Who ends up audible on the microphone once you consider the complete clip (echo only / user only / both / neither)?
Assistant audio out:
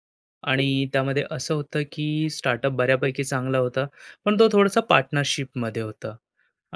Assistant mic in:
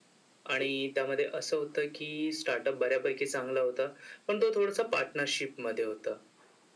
echo only